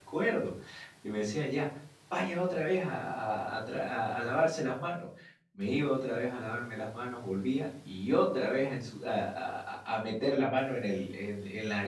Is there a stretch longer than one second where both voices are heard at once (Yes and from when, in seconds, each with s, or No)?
No